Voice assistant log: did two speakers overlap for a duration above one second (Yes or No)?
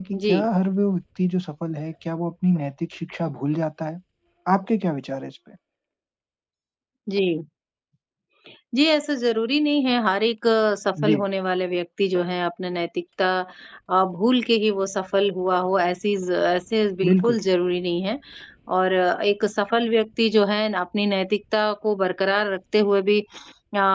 No